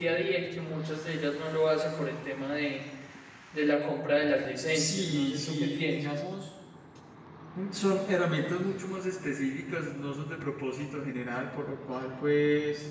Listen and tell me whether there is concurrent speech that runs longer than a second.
Yes, from 4.7 s

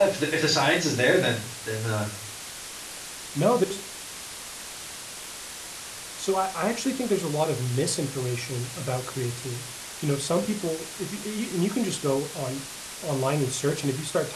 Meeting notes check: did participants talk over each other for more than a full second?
No

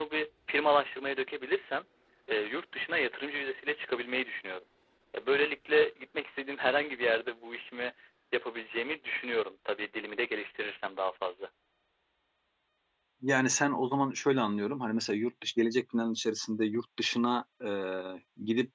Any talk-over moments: No

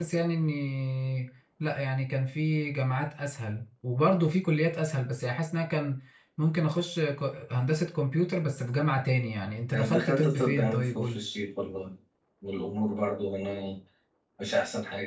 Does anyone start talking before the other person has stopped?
Yes, from 9.7 s

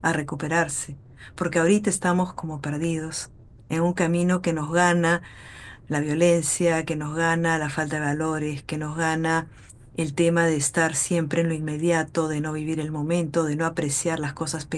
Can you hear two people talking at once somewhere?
No

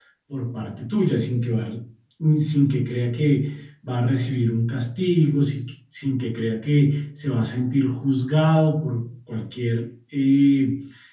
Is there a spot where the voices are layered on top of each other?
No

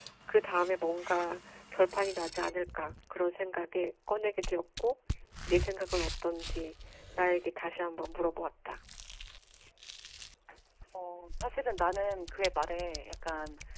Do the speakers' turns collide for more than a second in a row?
No

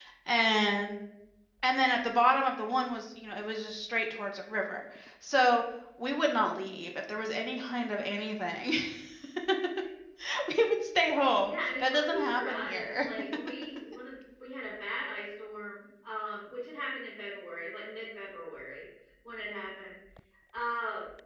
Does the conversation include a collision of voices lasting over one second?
Yes, from 11.5 s

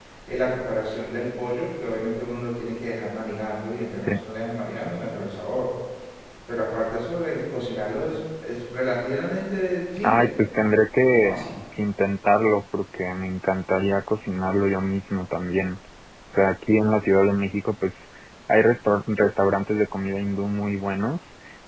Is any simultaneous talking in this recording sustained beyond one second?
No

